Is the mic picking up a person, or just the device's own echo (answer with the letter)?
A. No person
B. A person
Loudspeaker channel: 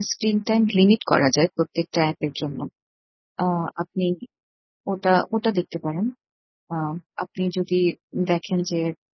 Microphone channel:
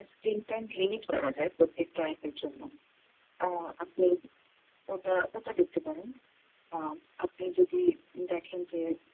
A